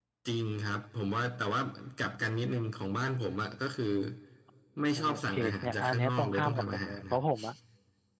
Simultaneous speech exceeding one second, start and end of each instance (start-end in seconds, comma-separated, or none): 5.0-7.2